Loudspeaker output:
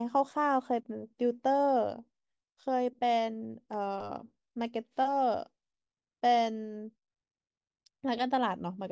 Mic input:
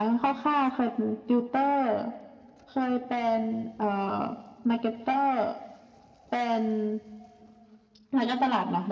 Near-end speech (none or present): none